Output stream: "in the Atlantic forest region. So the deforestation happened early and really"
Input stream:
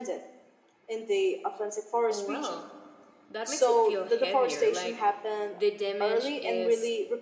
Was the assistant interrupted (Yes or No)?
Yes